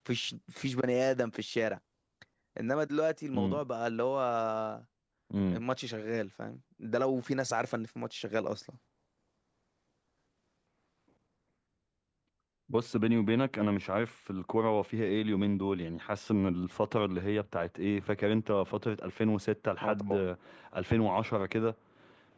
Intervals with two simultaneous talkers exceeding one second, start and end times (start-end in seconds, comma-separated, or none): none